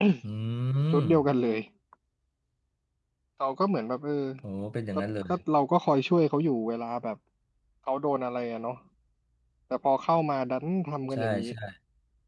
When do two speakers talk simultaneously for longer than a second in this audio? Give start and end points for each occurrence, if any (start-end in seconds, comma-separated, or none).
none